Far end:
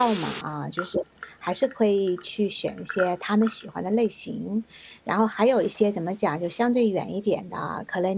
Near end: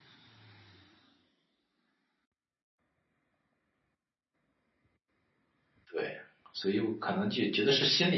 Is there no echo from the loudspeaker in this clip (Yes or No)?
Yes